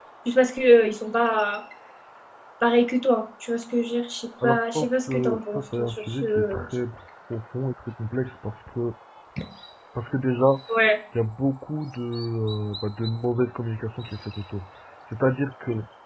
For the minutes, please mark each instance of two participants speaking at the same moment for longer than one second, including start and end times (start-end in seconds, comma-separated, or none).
4.4-6.6